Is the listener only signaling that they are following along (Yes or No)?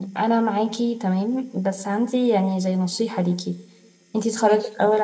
Yes